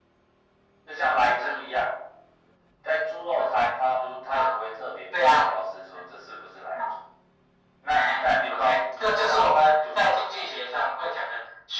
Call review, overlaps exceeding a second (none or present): present